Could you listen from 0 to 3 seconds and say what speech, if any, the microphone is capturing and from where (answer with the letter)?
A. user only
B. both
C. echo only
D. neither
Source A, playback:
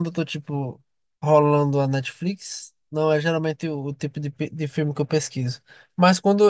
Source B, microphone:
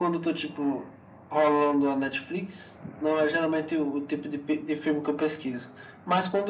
C